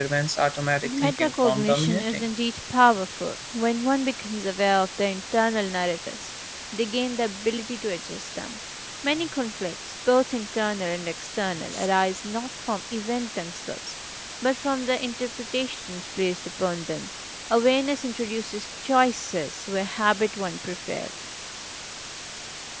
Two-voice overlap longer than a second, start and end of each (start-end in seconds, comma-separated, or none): 0.8-2.2